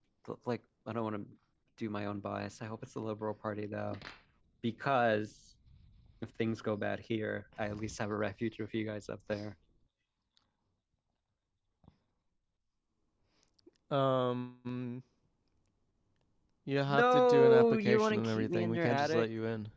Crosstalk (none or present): present